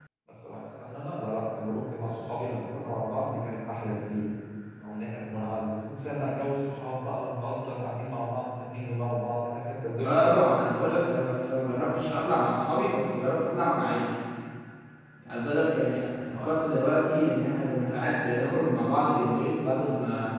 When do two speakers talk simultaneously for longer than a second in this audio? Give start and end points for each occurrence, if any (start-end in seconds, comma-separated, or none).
none